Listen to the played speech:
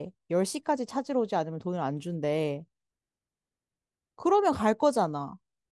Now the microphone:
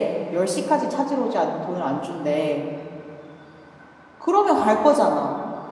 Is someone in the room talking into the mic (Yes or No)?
No